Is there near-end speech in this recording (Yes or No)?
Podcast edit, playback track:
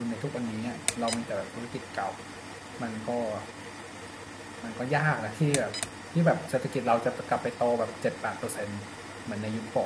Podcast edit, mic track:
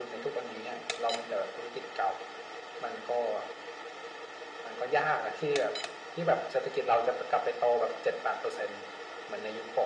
No